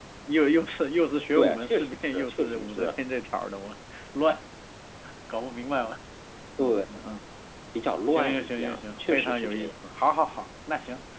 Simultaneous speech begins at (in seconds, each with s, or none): 1.4 s